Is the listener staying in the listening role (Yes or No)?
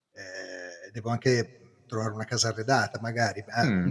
No